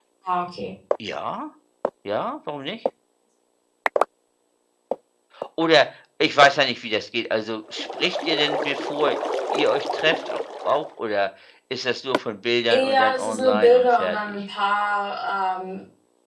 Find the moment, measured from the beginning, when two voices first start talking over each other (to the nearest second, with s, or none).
13 s